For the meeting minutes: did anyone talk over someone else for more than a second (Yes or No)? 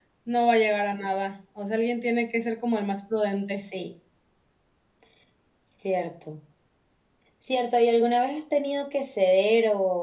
No